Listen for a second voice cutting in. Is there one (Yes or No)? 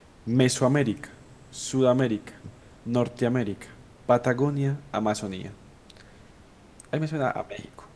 No